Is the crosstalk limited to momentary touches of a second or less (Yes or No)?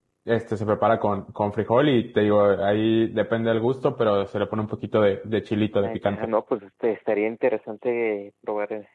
Yes